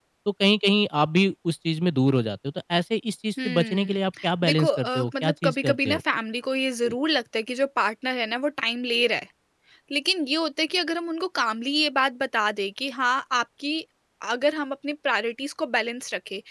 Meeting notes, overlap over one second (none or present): present